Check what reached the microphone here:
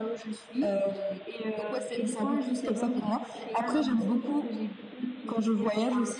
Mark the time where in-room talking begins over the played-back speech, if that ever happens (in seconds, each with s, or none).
none